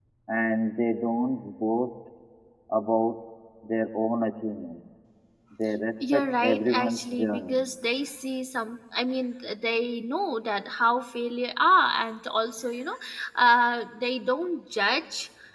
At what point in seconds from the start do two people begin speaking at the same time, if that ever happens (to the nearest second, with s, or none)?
6 s